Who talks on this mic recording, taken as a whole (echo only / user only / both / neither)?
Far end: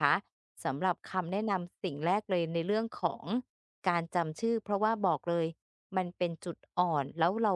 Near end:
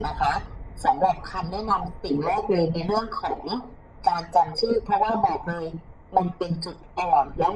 echo only